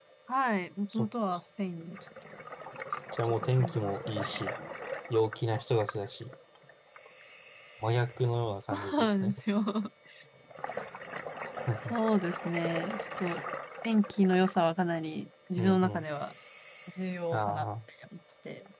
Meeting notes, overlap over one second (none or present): present